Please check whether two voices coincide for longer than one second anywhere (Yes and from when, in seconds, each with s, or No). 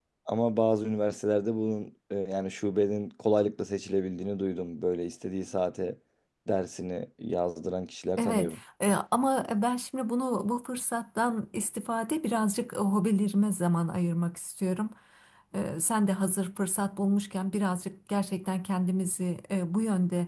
No